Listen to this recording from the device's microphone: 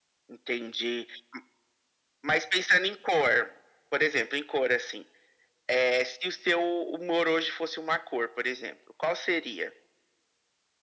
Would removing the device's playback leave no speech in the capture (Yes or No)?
Yes